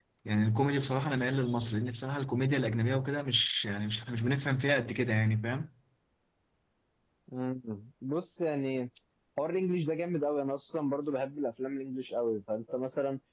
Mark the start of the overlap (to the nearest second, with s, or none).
none